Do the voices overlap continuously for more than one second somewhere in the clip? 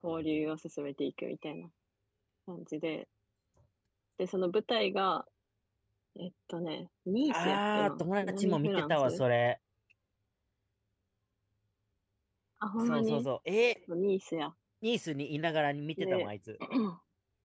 Yes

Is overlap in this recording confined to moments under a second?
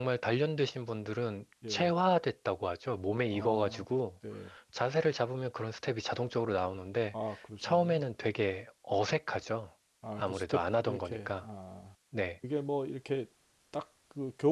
No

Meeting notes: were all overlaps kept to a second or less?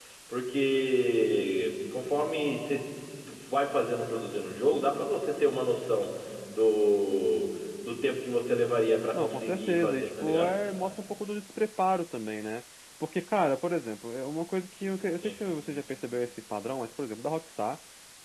No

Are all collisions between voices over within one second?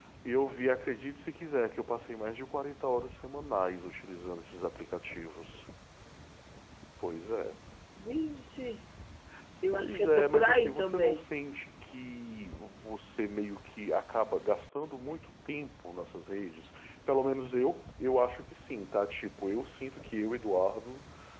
No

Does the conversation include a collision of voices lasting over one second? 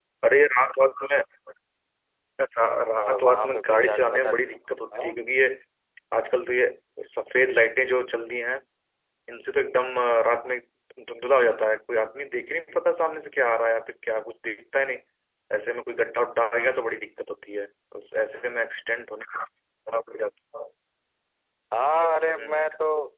Yes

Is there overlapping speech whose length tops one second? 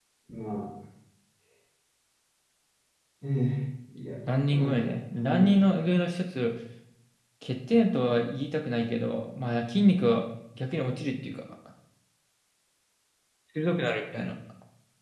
Yes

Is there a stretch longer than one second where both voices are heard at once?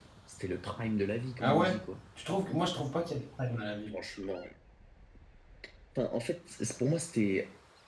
No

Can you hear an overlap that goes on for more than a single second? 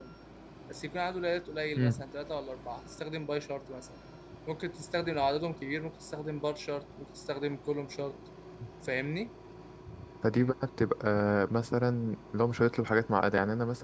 No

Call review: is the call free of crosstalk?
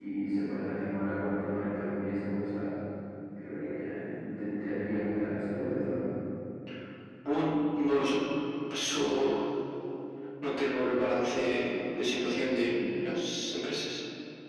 Yes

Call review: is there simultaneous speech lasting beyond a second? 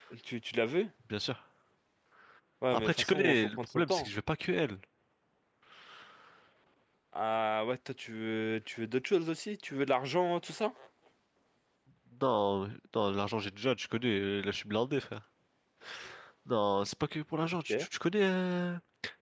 Yes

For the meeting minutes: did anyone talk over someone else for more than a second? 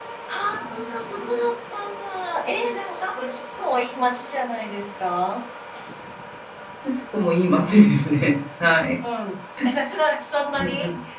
No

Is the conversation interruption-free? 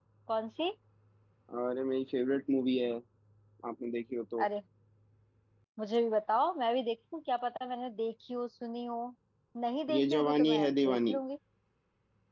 No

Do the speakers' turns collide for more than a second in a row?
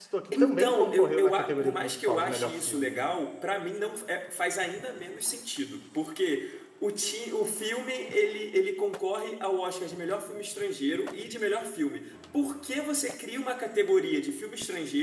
Yes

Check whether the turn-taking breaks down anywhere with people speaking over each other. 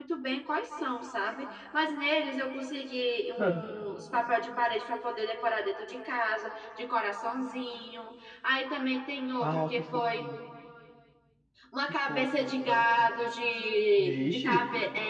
Yes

